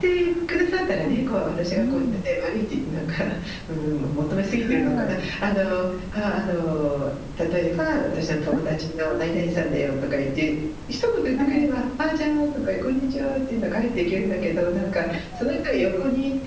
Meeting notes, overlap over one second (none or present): none